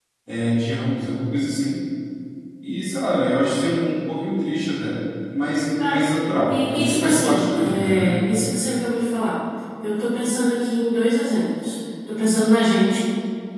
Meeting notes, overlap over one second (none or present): present